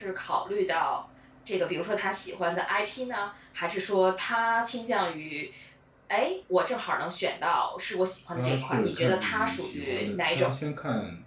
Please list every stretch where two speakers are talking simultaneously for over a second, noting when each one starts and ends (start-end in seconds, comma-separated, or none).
8.3-10.5